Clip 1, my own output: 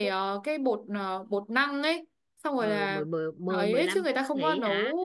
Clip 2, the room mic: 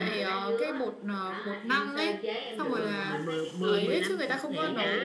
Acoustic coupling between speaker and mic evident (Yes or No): Yes